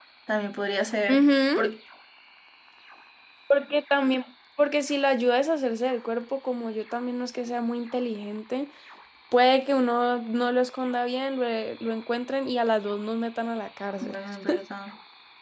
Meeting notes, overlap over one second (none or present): none